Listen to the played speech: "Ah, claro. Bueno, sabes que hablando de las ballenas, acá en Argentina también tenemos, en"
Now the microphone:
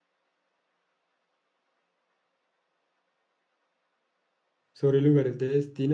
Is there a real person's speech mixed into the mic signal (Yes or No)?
Yes